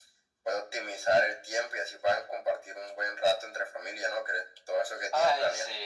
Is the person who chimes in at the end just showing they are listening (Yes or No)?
No